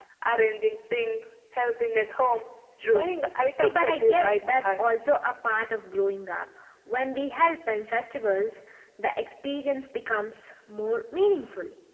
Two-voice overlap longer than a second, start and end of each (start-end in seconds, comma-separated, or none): 3.6-4.9